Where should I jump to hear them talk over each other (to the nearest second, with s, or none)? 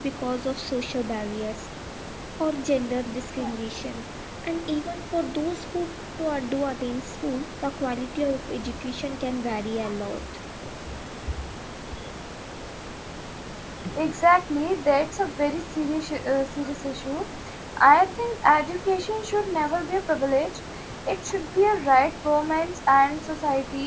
none